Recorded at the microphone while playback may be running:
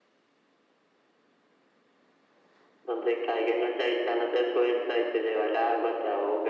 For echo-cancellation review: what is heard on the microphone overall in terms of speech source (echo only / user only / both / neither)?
echo only